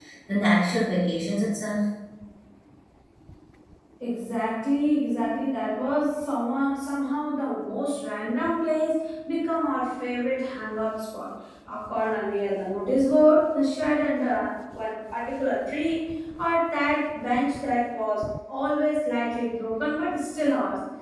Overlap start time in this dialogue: none

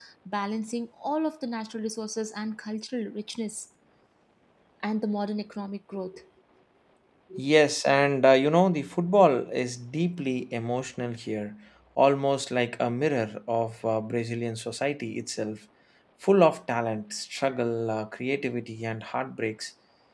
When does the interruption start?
none

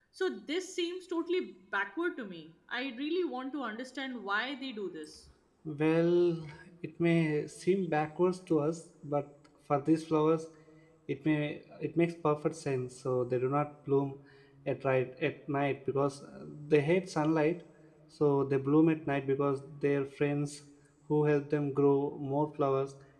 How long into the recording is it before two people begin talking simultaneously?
none

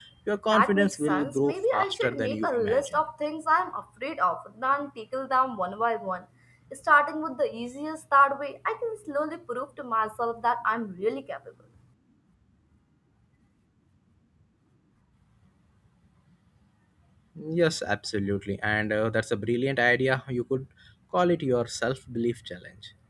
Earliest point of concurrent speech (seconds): 1 s

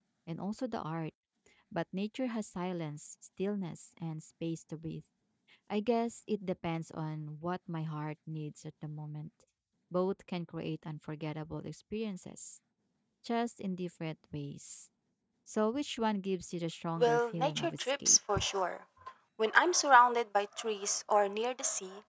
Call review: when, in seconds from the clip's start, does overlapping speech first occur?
17 s

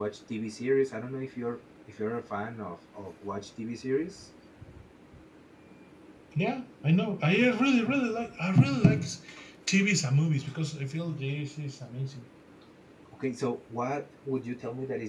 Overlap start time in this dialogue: none

